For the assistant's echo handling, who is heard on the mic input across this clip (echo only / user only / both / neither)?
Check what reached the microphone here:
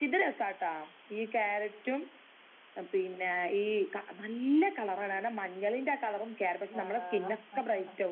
both